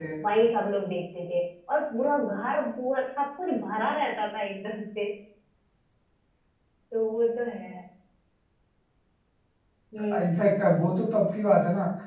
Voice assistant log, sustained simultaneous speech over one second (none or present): none